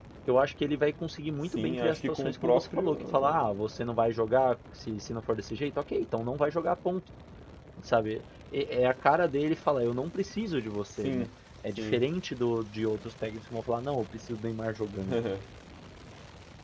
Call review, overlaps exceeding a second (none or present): present